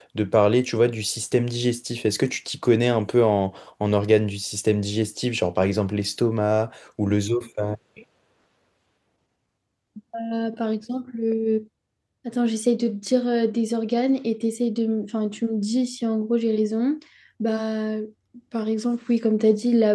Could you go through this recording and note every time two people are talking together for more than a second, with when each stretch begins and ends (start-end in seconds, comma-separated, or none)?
none